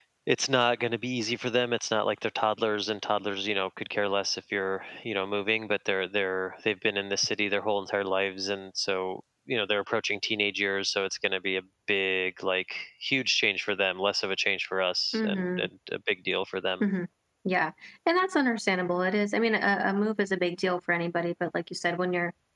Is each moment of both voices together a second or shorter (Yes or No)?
Yes